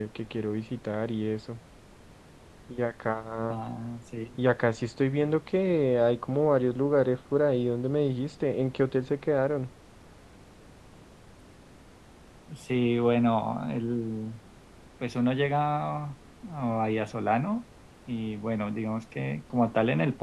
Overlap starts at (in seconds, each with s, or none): none